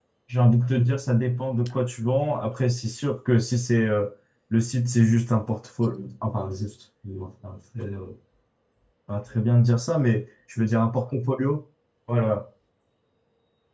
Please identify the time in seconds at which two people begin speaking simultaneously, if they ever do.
none

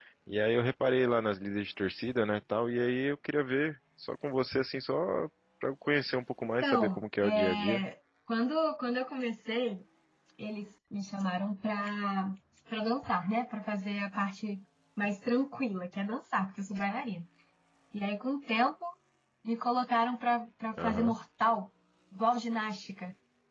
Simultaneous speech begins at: 6.6 s

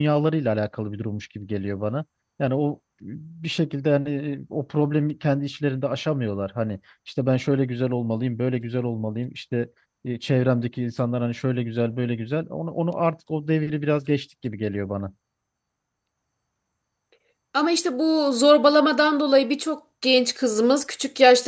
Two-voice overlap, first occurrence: none

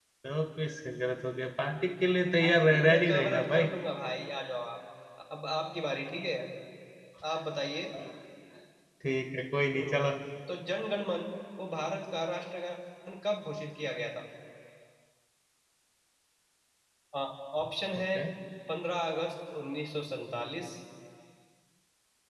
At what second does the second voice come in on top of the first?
2.4 s

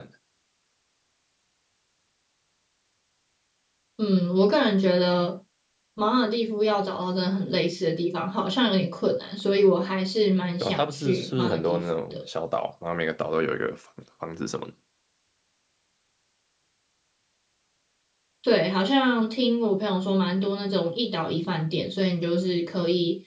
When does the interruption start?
10.6 s

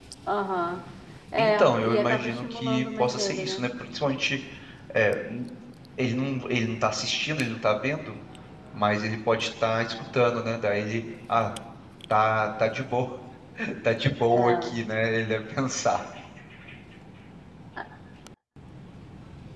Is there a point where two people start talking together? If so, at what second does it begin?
1.4 s

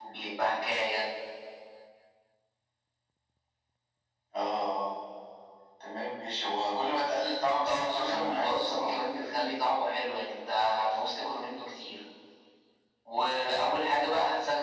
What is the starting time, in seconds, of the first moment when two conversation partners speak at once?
7.6 s

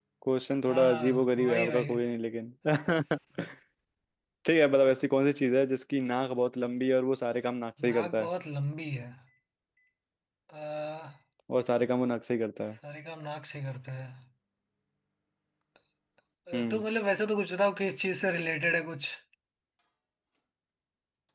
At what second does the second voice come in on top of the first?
0.7 s

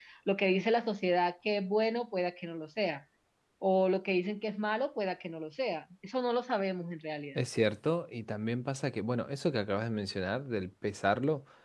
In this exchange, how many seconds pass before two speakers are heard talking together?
none

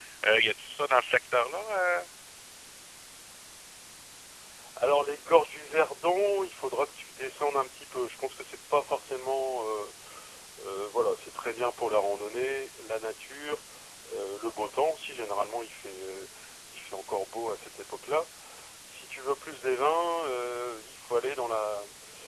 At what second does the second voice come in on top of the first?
none

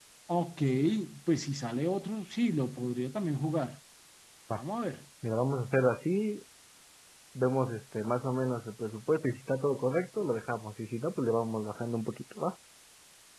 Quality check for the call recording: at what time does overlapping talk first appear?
none

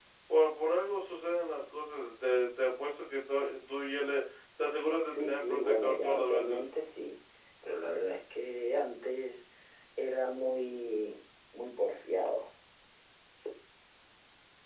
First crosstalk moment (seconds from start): 5.0 s

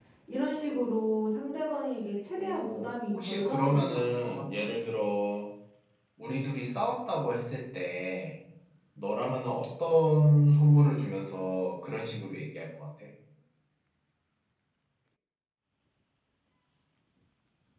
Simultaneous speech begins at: 2.4 s

